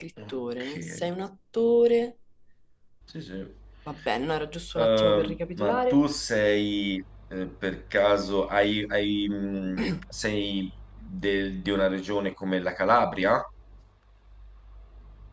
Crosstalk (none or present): present